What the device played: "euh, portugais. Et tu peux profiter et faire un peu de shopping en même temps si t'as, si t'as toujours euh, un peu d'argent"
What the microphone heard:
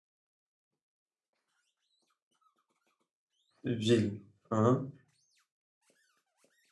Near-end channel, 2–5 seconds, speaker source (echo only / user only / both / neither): user only